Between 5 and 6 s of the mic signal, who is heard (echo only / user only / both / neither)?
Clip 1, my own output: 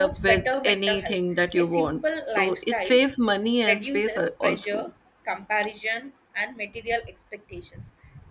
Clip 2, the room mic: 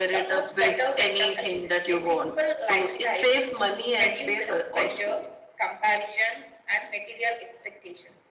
echo only